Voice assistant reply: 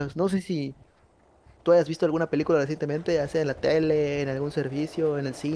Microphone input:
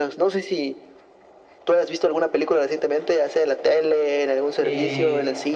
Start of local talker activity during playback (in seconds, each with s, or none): 4.6 s